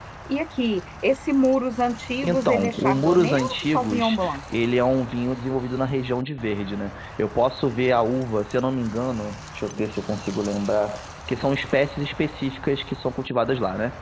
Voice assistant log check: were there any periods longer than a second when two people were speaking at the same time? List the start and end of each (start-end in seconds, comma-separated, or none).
2.2-4.4